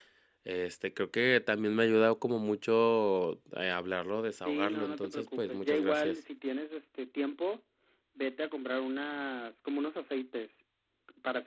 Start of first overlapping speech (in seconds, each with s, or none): 4.5 s